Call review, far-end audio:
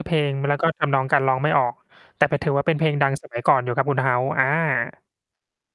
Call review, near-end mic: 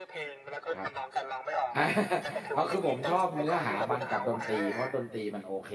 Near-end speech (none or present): present